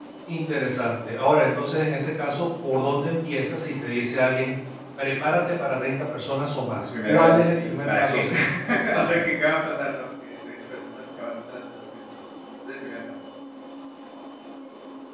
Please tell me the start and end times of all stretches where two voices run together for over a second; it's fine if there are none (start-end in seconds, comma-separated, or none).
7.0-8.2